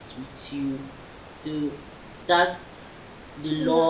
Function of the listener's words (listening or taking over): taking over